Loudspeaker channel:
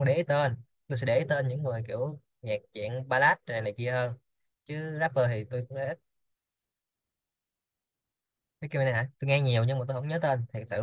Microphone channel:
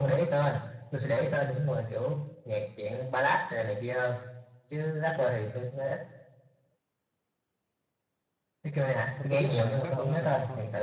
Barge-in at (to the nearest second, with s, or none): 9 s